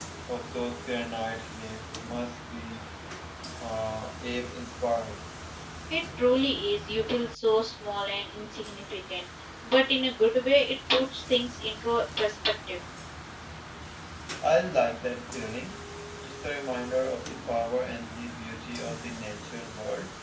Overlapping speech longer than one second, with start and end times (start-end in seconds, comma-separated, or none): none